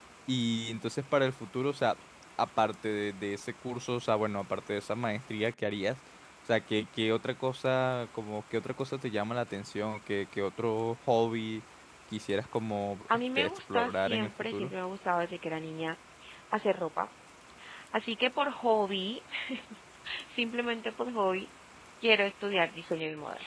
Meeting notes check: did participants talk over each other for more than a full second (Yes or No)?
Yes